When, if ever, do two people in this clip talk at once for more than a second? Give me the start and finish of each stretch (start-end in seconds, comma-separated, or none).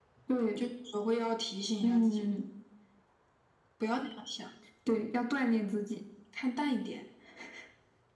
none